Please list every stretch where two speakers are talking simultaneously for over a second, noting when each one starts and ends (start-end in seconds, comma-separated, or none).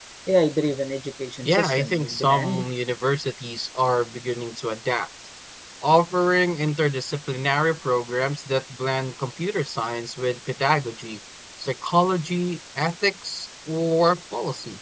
1.4-2.6